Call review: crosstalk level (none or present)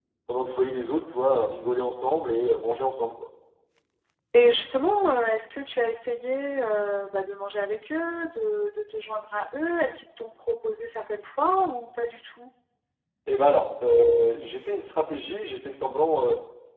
none